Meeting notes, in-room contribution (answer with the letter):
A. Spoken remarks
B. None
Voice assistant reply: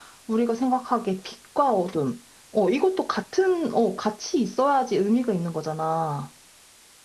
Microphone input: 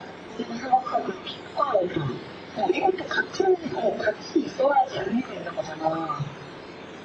B